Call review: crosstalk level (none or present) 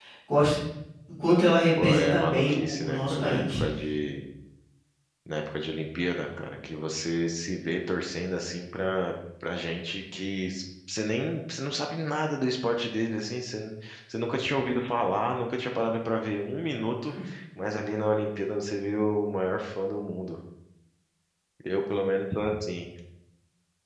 present